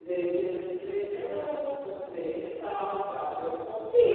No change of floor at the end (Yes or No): No